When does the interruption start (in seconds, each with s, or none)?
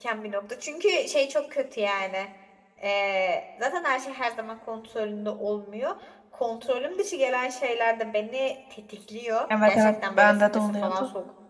9.5 s